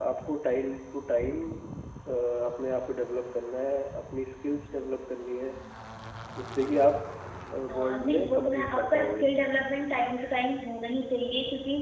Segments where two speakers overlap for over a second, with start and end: 7.7-9.2

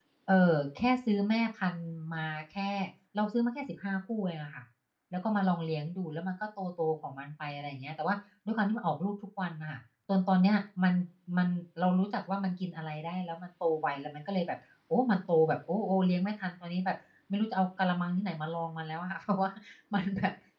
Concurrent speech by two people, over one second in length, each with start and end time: none

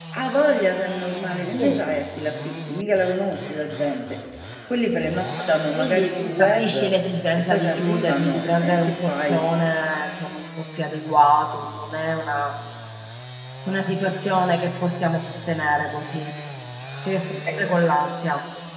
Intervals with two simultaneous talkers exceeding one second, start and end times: 5.7-6.9, 7.4-9.4

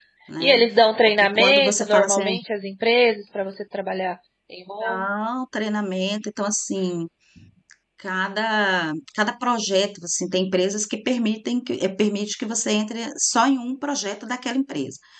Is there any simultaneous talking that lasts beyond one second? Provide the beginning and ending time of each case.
1.1-2.3

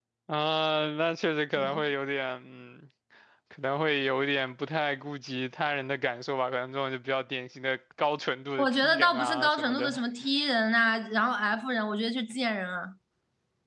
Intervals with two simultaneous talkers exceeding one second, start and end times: 8.6-9.9

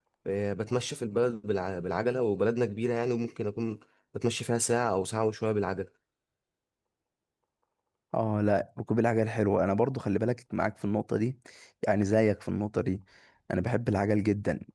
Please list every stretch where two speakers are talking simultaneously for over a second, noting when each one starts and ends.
none

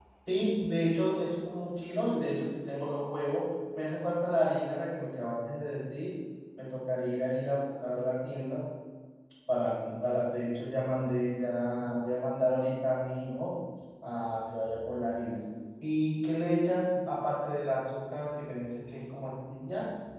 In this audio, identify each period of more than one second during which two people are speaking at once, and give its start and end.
none

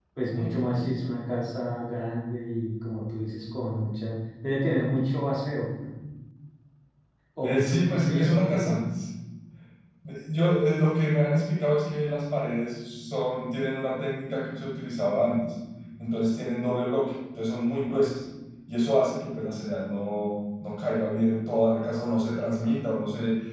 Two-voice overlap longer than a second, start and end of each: 7.4-8.8

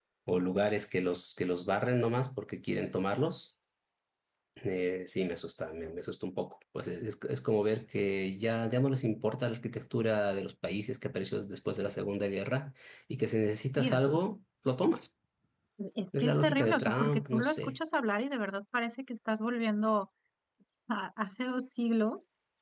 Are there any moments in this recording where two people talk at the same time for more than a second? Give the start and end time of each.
16.2-17.8

